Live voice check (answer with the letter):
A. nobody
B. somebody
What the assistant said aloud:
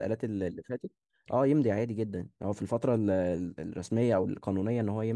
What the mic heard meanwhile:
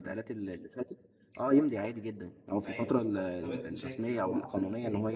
B